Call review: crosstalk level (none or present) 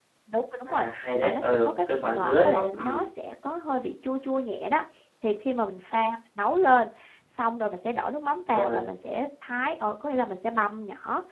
present